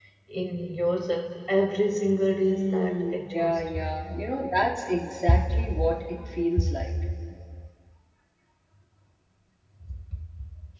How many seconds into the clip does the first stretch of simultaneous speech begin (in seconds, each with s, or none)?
2.4 s